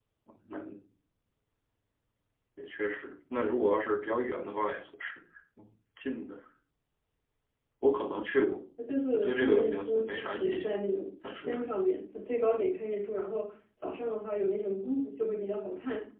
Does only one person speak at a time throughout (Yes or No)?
No